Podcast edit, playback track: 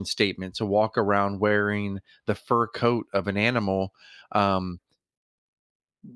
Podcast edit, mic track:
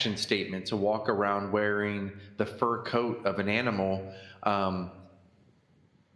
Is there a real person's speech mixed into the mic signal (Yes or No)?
No